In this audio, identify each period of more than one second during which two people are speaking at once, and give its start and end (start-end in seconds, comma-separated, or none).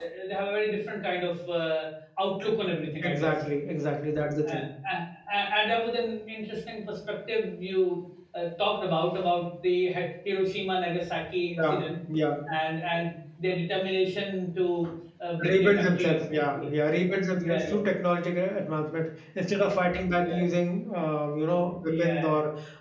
15.4-16.7